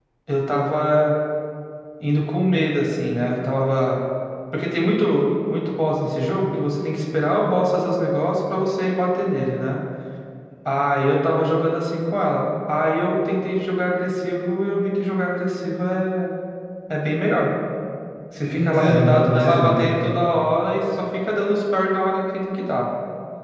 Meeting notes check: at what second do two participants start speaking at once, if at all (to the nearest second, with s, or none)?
18 s